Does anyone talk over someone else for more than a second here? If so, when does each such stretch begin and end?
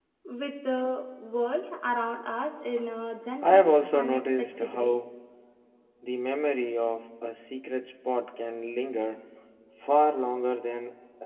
3.4-5.0

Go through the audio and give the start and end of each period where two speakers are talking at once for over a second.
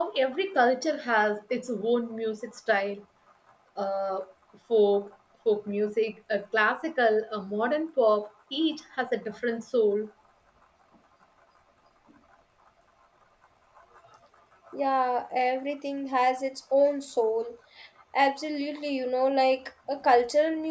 none

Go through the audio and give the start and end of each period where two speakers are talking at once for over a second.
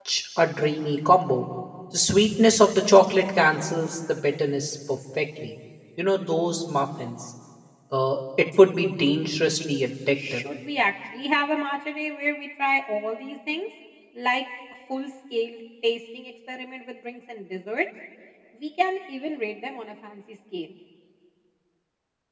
none

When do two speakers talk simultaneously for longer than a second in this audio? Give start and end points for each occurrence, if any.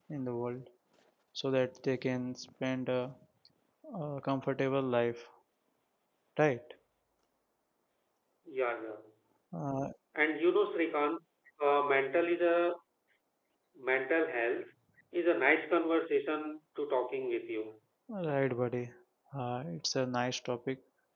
none

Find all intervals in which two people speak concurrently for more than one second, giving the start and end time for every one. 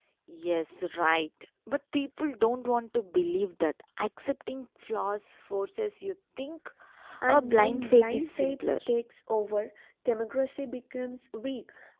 7.3-8.6

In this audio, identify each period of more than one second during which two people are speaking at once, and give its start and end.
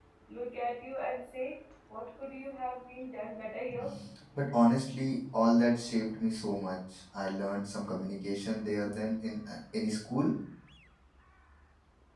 none

